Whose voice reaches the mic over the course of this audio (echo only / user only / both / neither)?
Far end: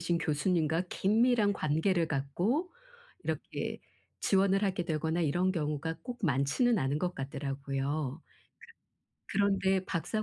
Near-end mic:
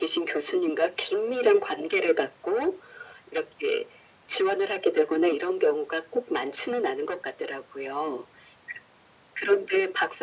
echo only